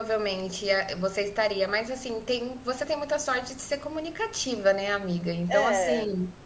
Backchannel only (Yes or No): Yes